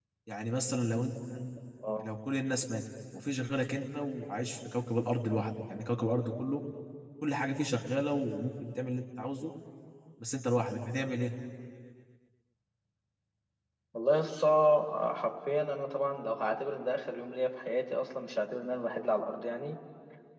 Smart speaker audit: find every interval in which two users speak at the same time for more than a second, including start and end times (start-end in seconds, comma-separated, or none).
none